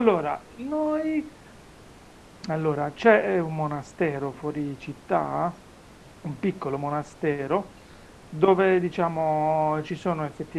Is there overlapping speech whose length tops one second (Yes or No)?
No